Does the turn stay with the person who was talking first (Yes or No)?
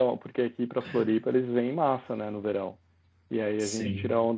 Yes